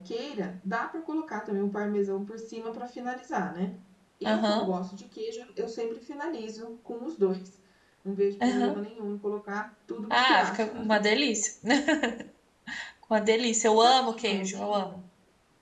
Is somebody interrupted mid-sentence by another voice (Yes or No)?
Yes